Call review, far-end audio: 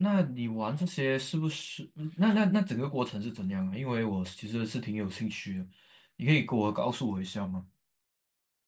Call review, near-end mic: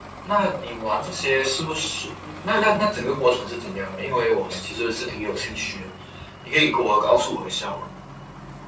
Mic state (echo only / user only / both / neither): echo only